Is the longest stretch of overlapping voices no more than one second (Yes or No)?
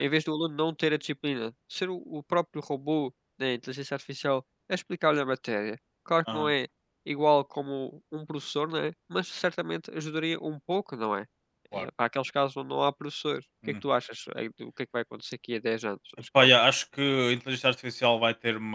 Yes